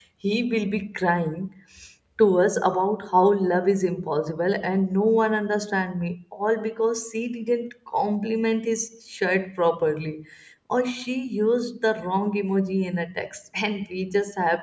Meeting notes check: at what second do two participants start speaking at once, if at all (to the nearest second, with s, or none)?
none